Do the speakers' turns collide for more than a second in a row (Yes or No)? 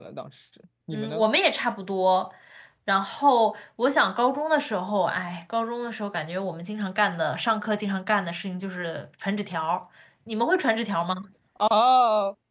No